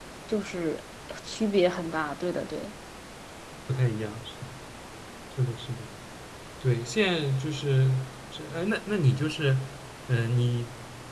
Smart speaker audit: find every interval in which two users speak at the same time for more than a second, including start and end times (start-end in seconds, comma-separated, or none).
none